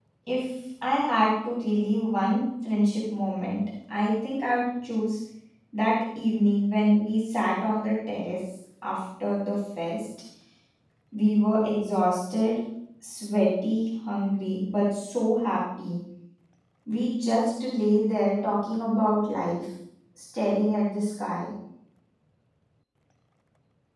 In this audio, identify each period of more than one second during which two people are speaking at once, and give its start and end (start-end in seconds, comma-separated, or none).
none